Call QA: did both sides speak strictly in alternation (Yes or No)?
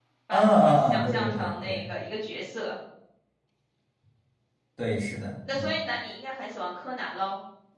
No